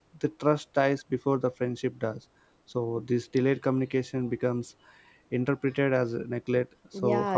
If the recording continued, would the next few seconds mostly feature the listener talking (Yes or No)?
Yes